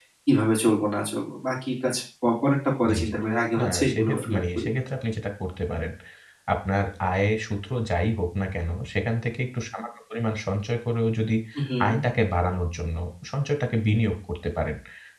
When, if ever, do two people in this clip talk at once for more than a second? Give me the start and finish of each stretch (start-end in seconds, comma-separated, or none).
3.6-4.8